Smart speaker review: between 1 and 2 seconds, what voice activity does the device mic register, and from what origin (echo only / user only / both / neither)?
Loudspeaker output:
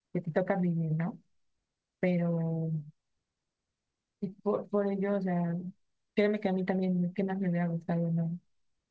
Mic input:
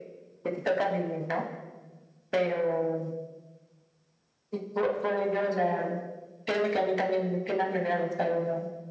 echo only